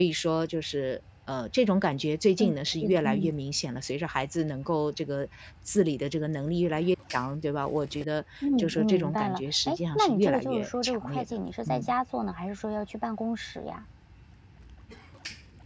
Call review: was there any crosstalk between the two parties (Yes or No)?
Yes